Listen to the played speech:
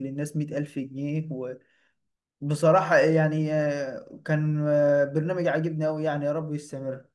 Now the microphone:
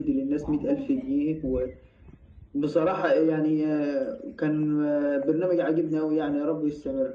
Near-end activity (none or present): present